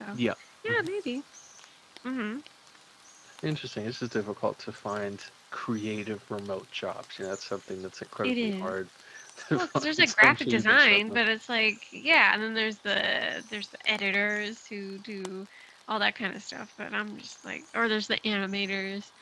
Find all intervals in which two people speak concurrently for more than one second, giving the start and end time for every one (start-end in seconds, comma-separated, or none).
9.5-11.2